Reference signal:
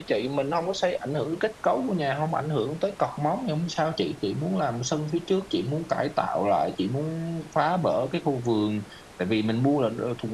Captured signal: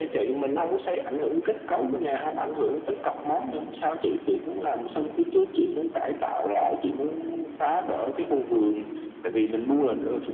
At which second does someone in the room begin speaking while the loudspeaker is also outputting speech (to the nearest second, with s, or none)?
none